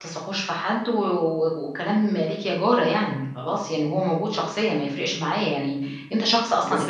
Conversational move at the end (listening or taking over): taking over